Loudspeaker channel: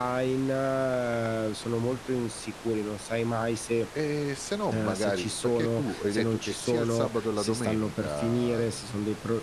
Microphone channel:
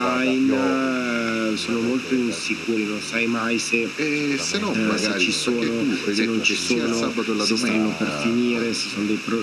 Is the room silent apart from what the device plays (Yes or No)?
No